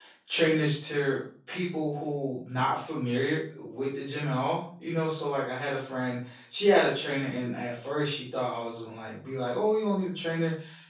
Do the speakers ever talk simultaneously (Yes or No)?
No